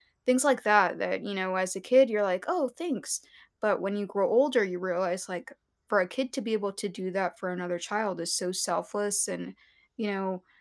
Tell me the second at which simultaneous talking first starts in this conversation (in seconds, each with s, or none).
none